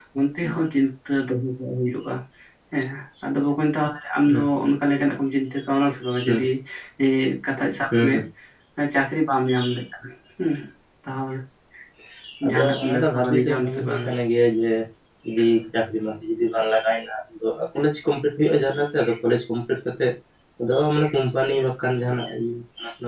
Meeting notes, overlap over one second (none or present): present